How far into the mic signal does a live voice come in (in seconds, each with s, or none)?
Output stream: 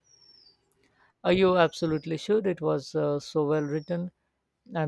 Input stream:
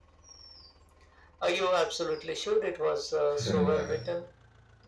3.4 s